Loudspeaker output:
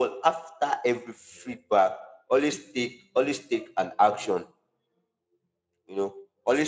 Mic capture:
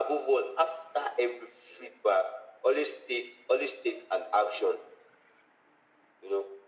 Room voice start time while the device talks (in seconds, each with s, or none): none